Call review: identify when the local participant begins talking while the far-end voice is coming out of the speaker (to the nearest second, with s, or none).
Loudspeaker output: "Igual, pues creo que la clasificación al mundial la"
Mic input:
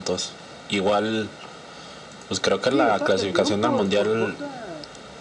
3 s